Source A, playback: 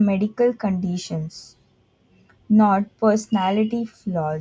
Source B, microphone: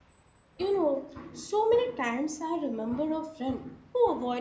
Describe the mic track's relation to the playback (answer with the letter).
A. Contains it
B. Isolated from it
B